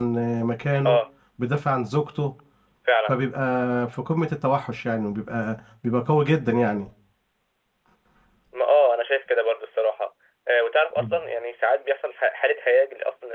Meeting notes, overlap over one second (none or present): none